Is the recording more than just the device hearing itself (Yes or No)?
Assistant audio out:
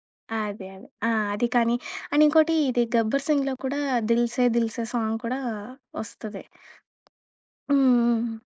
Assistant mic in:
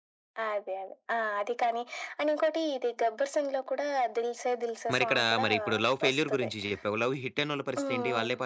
Yes